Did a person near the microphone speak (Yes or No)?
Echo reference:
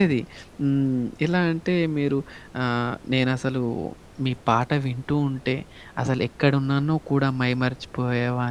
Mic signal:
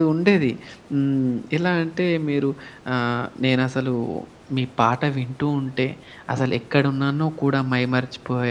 No